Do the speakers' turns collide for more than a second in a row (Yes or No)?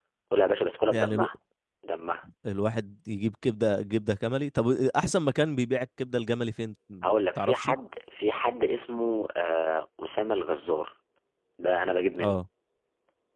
No